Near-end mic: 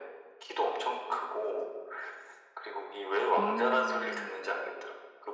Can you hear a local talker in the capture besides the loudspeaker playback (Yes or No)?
Yes